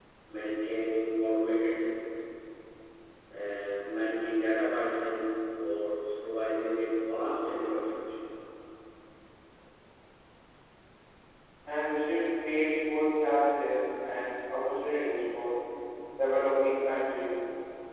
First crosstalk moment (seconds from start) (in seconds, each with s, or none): none